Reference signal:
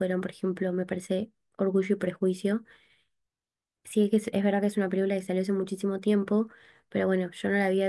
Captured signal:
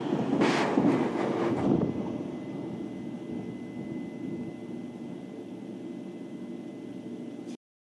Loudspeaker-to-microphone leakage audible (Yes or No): No